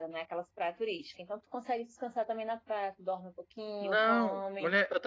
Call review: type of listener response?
taking over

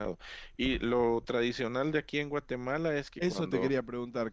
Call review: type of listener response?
taking over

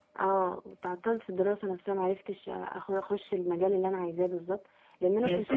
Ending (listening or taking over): listening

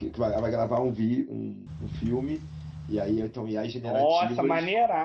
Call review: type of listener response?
taking over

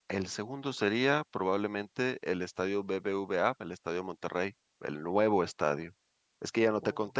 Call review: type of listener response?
listening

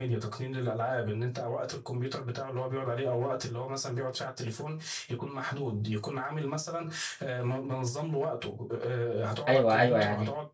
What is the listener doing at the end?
taking over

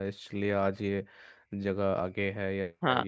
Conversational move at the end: taking over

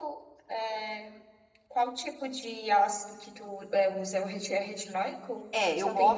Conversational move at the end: taking over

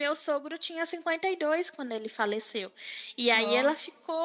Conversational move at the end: listening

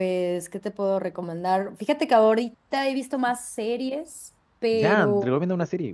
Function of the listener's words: taking over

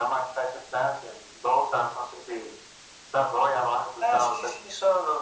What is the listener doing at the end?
taking over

